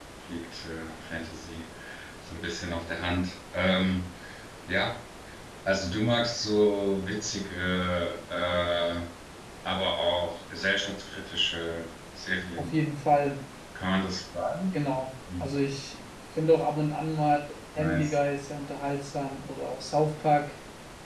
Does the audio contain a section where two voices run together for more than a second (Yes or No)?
No